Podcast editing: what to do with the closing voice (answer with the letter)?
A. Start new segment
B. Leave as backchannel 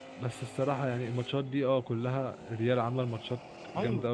A